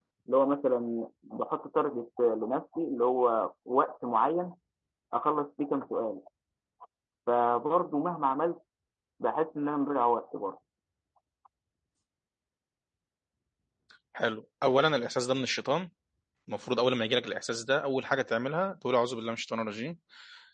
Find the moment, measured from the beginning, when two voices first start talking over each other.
none

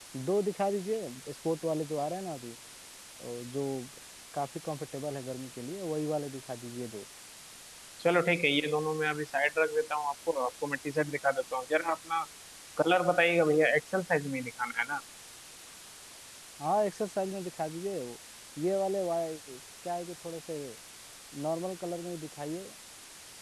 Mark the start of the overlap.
none

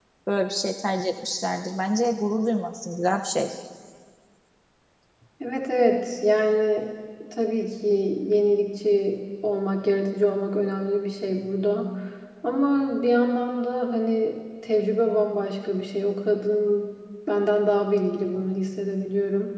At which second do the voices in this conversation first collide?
none

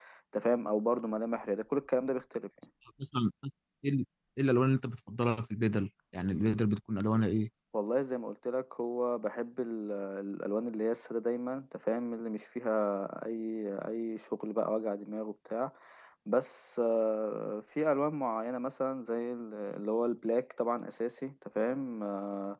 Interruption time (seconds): none

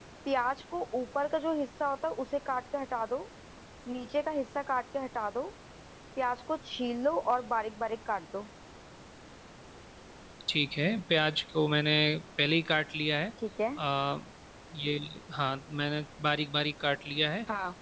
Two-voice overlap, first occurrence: none

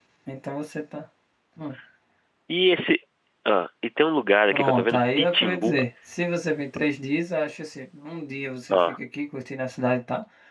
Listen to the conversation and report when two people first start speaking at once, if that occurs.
4.5 s

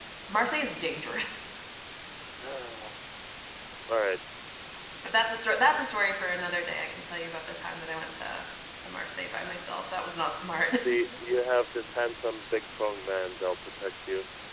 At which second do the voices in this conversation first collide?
none

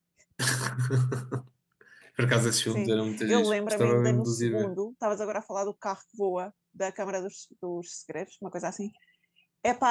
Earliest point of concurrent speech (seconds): 2.7 s

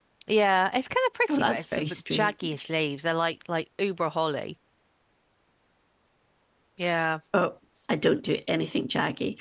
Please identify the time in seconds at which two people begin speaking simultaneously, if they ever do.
1.3 s

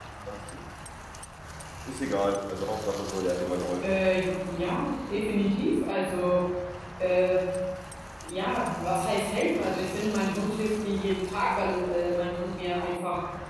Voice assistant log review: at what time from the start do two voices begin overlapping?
none

